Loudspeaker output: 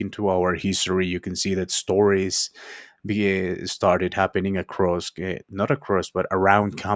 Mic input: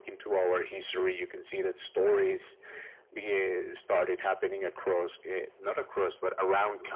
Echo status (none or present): present